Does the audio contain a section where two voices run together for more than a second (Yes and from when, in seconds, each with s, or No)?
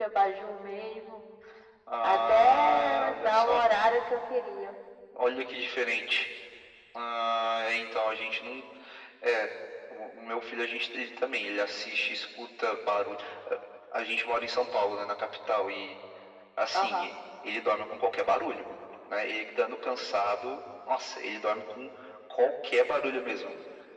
Yes, from 2.0 s